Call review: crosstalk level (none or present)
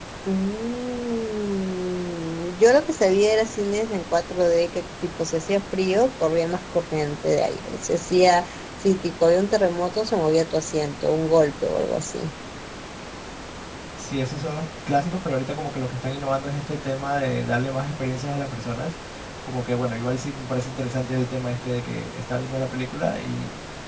none